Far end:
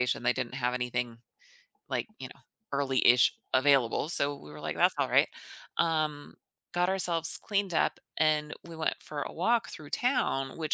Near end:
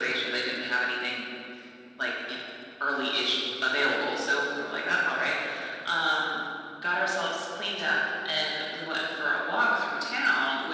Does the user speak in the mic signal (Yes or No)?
No